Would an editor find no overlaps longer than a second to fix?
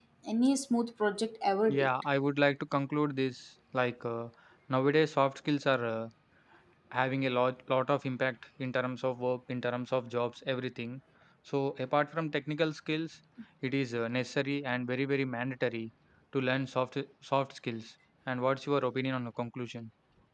Yes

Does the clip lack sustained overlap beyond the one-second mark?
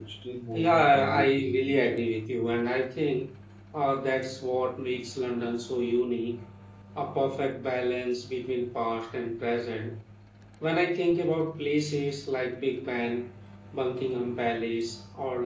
No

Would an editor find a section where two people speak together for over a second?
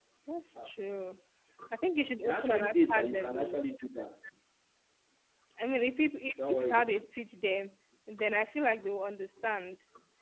Yes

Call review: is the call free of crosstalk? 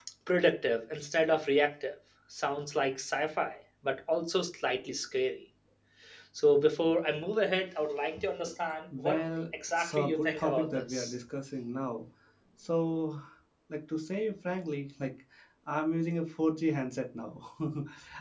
No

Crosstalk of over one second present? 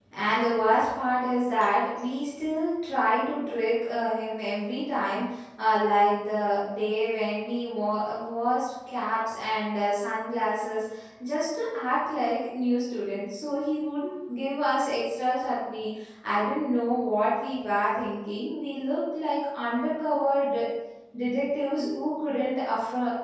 No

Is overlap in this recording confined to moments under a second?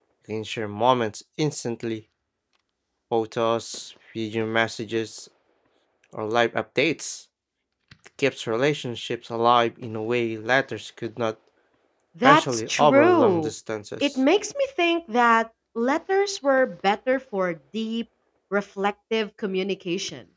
No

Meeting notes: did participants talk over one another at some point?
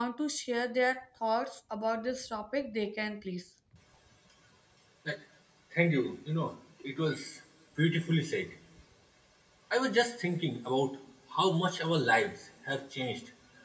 No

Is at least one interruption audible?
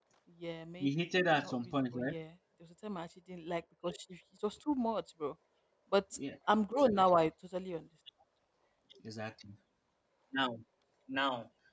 Yes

